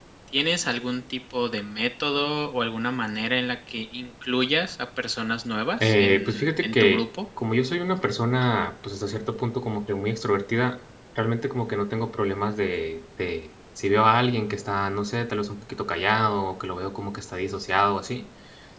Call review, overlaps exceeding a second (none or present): present